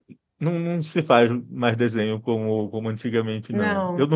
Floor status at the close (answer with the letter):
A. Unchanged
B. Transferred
A